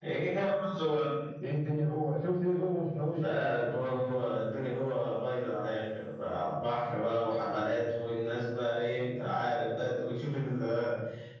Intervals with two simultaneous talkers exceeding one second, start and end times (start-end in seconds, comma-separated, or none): none